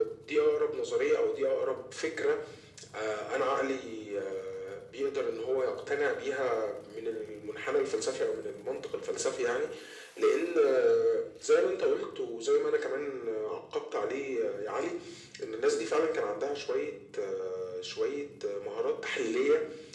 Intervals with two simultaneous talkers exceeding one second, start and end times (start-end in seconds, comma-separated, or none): none